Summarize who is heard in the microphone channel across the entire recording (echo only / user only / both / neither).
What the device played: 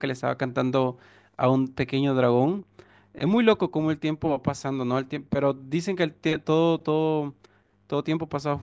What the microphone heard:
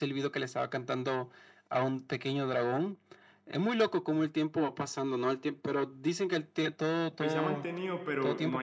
both